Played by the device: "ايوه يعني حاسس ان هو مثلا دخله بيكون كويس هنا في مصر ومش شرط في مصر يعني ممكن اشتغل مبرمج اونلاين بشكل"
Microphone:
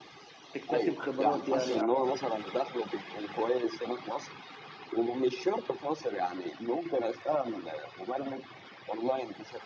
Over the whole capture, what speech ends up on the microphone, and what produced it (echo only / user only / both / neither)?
both